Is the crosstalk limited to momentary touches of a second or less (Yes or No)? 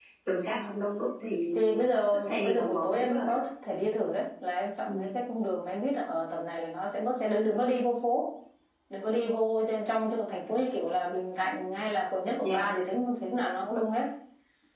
No